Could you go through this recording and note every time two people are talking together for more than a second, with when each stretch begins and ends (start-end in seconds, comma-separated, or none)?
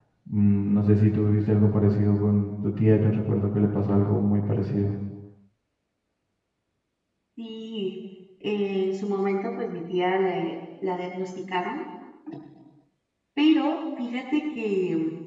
none